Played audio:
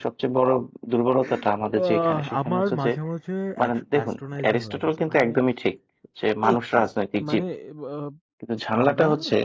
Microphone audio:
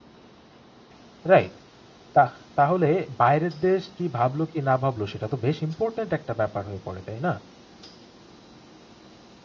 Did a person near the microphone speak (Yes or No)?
Yes